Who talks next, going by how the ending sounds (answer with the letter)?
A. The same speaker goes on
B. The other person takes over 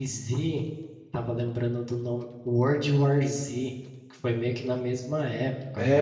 B